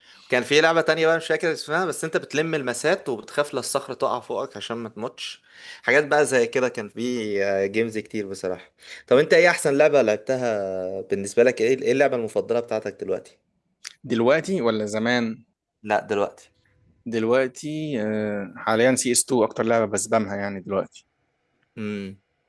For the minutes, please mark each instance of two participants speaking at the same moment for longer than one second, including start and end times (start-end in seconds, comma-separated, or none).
none